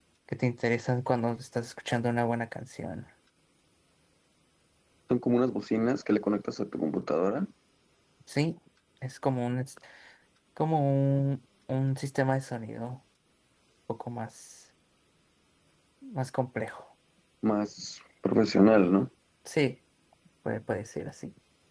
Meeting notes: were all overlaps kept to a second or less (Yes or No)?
Yes